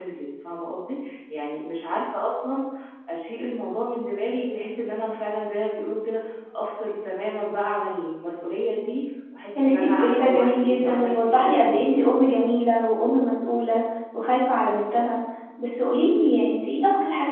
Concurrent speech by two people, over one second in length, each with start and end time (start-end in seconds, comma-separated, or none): 9.6-11.9